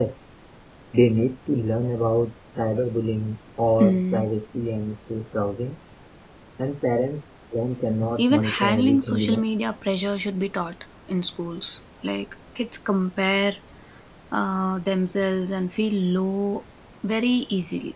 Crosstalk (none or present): present